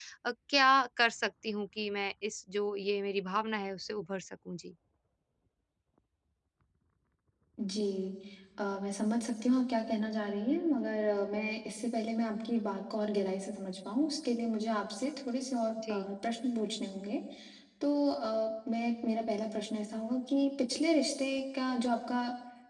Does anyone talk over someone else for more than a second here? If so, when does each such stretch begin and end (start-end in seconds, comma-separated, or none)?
none